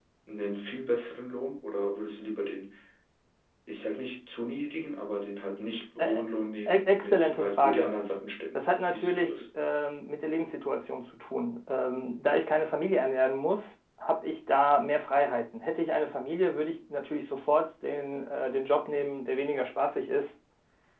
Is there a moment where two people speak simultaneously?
Yes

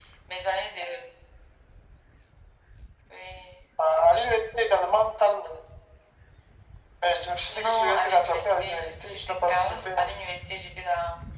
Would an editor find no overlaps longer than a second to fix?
No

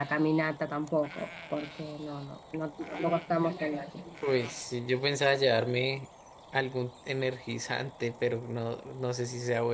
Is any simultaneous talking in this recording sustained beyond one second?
No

